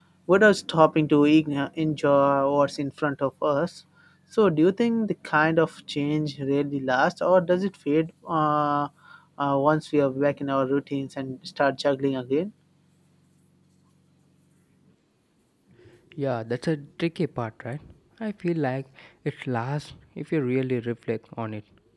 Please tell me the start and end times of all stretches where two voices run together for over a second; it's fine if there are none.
none

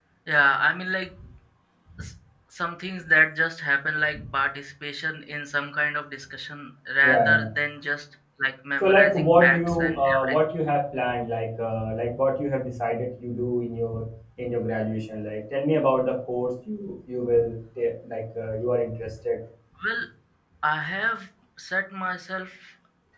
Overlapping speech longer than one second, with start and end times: 8.8-10.3

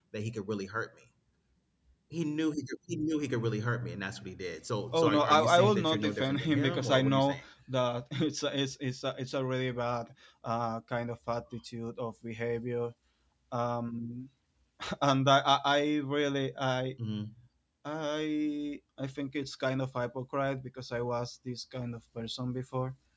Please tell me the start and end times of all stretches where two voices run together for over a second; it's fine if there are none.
4.9-7.4

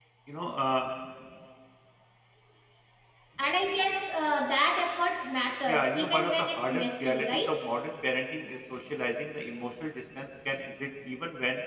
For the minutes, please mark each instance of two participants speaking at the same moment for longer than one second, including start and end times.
5.7-7.6

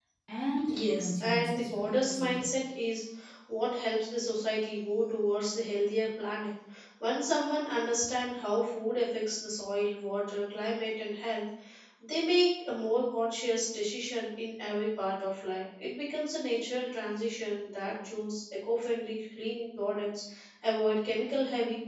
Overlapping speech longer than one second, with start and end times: 0.7-2.5

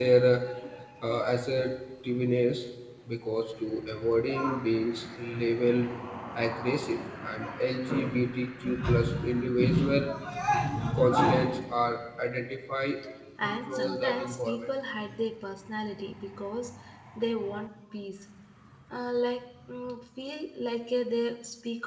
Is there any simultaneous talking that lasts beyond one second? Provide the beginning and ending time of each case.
13.4-14.7

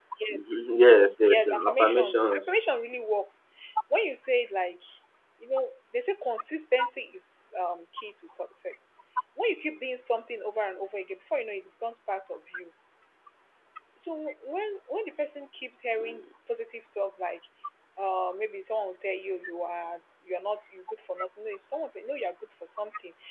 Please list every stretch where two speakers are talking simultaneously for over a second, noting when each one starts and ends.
1.2-2.5

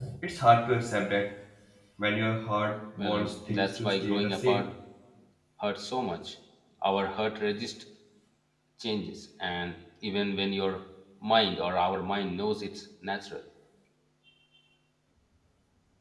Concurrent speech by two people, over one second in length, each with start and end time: 3.0-4.7

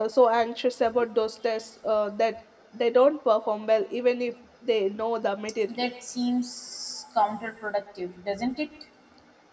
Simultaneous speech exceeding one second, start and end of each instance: none

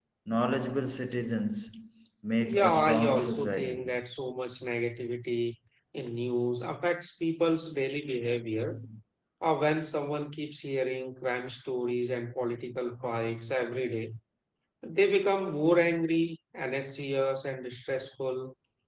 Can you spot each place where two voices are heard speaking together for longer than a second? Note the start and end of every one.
2.4-3.8

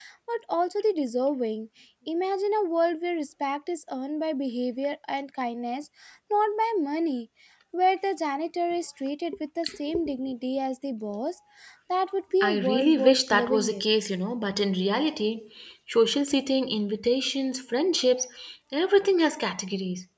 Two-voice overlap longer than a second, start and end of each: 12.4-13.8

